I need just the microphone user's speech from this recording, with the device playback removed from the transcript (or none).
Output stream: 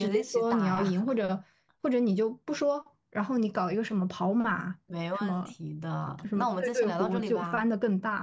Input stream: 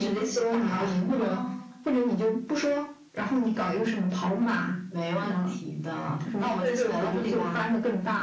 啊。